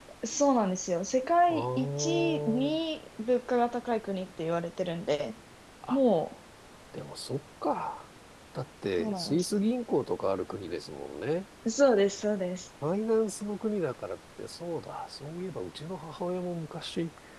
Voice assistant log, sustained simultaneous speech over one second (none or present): present